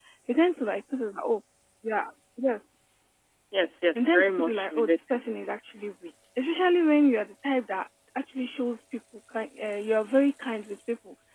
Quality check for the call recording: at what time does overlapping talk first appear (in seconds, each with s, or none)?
4.0 s